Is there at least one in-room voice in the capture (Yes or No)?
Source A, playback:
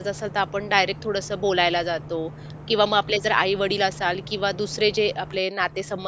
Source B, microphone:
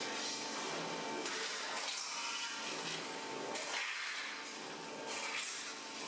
No